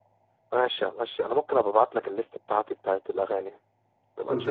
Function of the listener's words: taking over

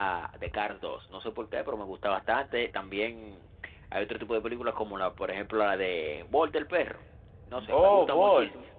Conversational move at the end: listening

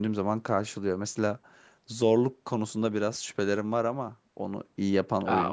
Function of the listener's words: taking over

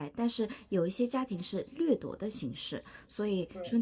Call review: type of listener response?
listening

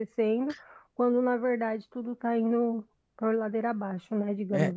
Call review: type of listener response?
taking over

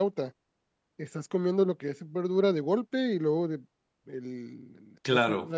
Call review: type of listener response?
listening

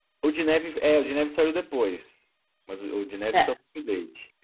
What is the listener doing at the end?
listening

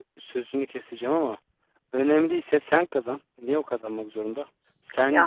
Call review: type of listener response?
listening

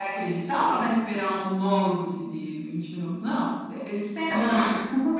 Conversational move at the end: listening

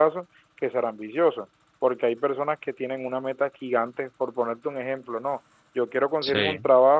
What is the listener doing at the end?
listening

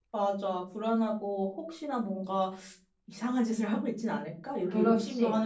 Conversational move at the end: taking over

